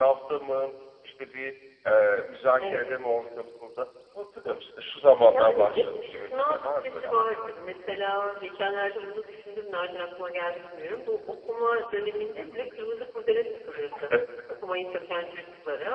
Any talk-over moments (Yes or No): Yes